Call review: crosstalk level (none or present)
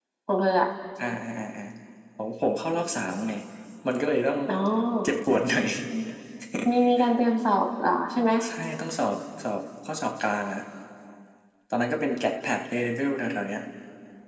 none